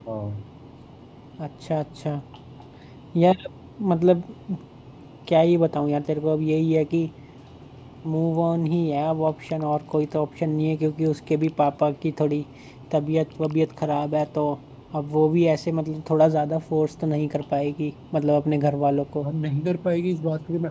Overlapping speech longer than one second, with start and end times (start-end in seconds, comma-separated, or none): none